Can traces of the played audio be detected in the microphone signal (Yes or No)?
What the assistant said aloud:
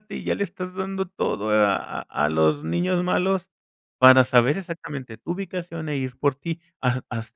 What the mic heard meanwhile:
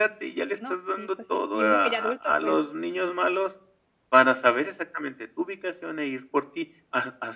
Yes